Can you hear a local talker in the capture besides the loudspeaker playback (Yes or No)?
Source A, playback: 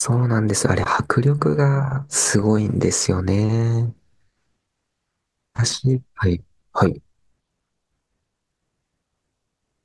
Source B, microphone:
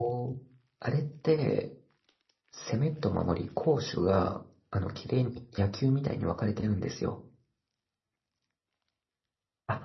Yes